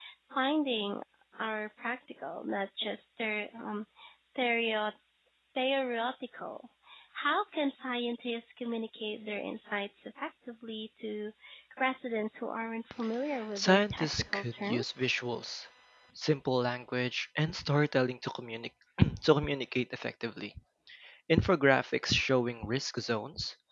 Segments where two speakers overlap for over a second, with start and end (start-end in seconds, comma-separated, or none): 13.6-15.1